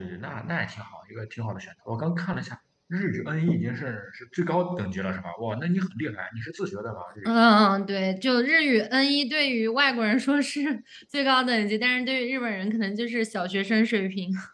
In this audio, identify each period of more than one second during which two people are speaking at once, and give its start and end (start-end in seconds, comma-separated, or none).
none